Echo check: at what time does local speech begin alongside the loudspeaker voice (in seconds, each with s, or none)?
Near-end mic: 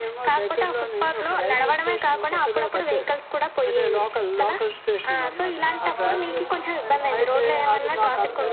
5.6 s